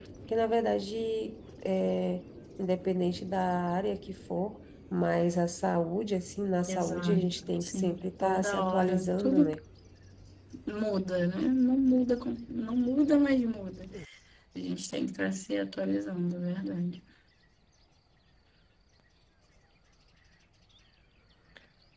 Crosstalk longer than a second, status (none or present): present